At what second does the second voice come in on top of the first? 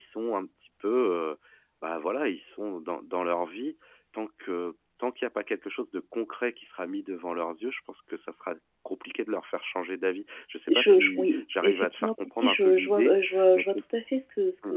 11 s

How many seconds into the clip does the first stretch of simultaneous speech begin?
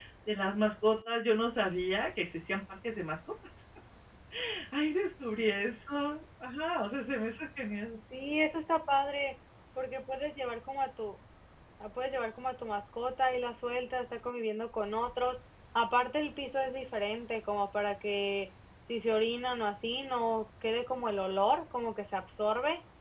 none

